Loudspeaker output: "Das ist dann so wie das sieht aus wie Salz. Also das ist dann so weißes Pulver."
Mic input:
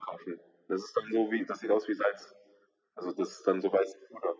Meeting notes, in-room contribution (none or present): none